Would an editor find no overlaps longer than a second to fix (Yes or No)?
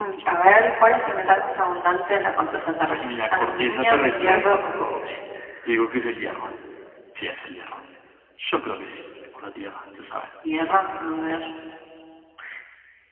No